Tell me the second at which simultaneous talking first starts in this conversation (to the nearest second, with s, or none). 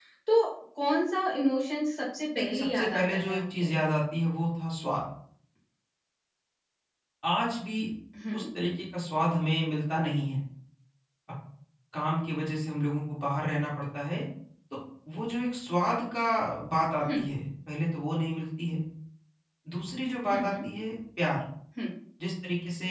2 s